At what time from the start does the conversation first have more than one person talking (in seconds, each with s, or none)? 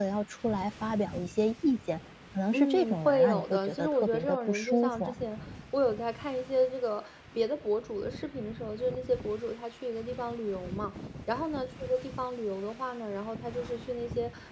2.5 s